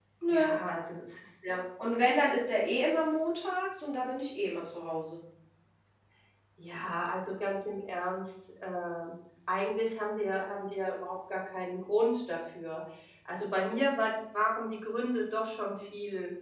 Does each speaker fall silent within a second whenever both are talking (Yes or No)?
Yes